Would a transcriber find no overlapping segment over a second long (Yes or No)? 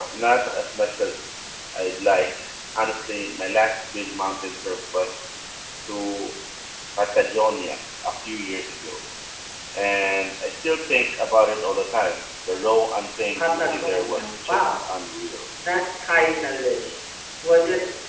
No